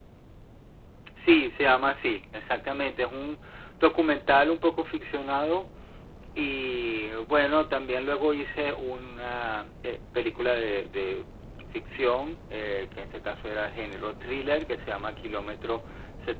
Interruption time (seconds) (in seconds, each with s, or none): none